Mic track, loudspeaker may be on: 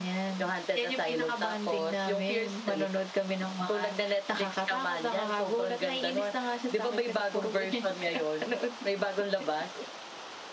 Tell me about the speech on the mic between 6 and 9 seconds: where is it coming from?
echo only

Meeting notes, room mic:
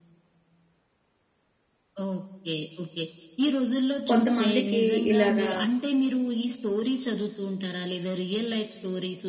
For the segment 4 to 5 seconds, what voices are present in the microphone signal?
both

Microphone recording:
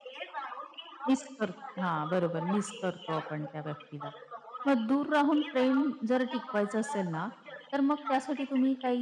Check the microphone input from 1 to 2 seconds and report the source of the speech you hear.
both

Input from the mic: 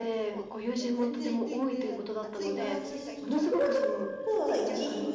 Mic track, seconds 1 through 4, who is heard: both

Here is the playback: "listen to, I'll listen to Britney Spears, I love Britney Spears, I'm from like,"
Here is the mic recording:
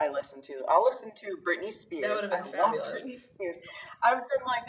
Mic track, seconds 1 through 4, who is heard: both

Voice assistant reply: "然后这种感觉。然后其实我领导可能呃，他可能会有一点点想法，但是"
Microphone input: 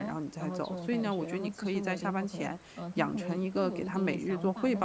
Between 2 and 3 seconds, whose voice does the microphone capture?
both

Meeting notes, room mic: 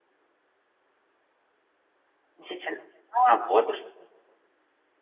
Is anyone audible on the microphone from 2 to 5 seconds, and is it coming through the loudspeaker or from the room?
user only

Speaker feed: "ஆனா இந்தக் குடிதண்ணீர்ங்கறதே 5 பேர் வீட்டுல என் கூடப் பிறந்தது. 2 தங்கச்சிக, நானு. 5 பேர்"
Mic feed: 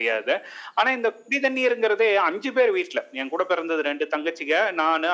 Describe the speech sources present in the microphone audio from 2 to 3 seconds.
echo only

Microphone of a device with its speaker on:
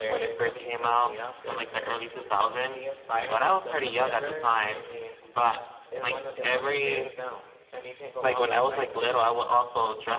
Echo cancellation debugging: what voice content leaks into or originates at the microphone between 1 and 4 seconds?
both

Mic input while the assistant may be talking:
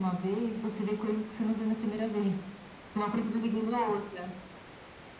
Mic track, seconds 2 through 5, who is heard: echo only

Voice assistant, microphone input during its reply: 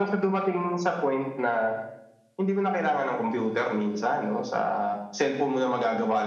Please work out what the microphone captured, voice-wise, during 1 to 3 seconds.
echo only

